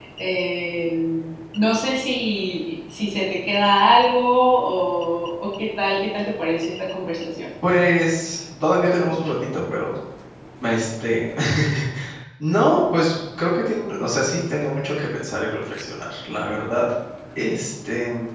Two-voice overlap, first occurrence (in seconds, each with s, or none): none